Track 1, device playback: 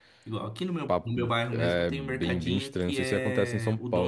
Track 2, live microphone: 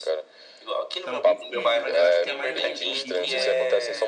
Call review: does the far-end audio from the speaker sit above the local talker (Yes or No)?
Yes